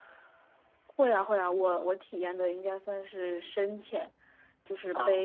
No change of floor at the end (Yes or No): Yes